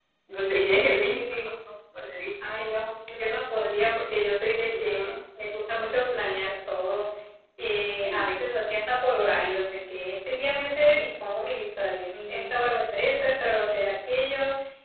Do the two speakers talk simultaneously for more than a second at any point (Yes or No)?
No